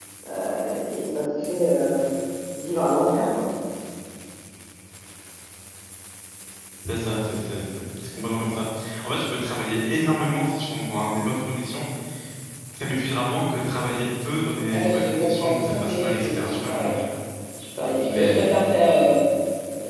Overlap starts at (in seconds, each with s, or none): 14.7 s